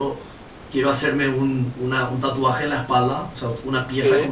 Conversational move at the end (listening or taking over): listening